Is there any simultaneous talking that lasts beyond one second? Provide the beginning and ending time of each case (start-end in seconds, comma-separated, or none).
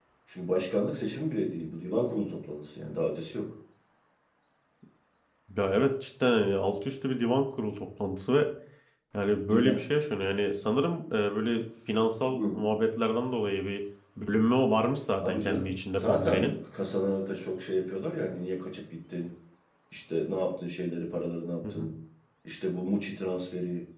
15.2-16.6